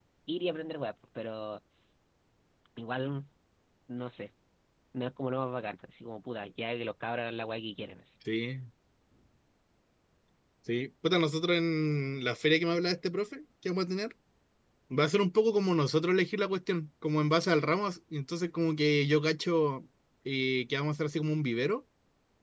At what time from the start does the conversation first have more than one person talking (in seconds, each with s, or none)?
none